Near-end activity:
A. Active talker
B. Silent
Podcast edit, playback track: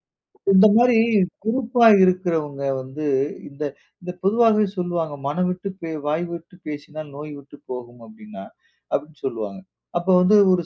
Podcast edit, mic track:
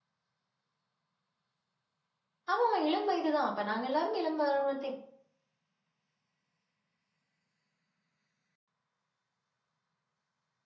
A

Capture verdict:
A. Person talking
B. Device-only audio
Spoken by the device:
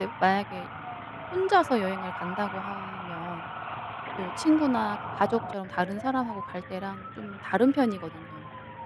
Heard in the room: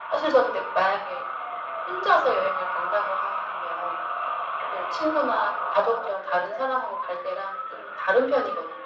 B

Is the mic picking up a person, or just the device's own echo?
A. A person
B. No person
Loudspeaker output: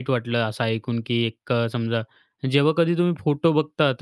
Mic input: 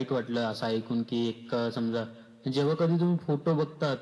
B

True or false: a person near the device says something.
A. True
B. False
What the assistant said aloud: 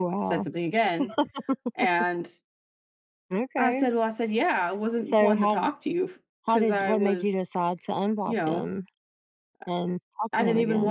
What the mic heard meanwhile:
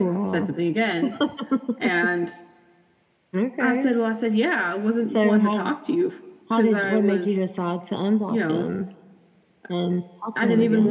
B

